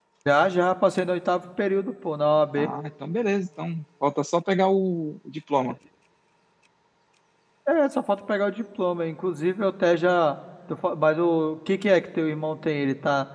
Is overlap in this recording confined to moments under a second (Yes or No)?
Yes